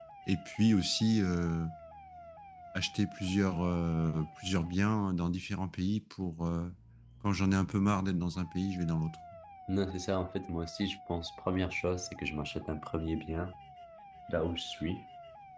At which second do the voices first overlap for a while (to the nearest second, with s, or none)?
none